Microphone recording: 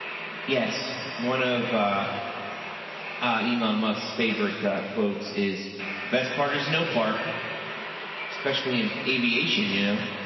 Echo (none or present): present